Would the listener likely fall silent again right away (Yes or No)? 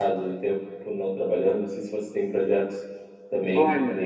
No